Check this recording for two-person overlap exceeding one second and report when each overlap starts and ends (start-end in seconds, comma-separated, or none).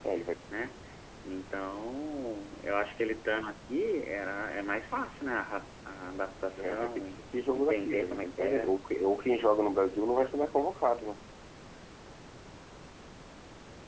6.6-8.7